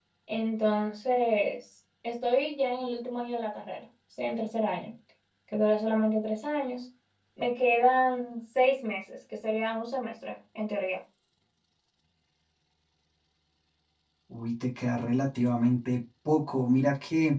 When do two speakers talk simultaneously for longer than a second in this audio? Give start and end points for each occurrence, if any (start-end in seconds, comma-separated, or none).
none